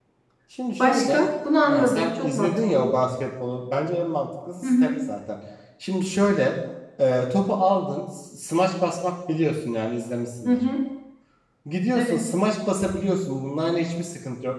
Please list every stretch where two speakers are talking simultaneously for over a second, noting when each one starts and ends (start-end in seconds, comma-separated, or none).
1.7-3.0